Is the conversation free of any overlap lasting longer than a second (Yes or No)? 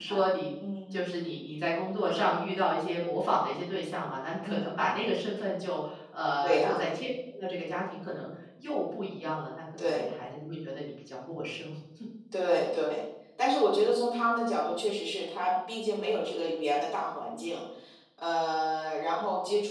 Yes